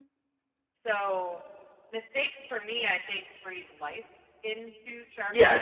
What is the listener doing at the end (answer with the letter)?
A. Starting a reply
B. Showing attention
A